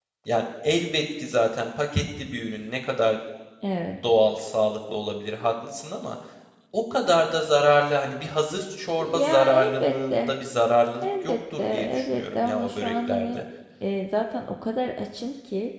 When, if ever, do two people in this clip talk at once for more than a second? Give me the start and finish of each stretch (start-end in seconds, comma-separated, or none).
9.0-10.3, 11.0-13.4